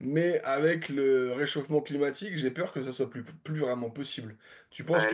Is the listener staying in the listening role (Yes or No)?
No